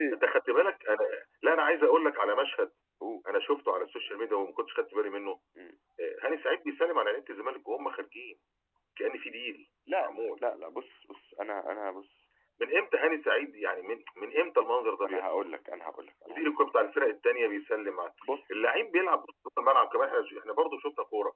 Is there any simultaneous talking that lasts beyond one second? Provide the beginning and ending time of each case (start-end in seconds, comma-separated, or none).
none